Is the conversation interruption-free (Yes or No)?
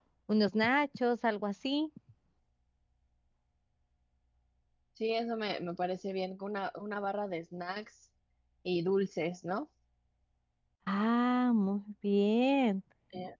Yes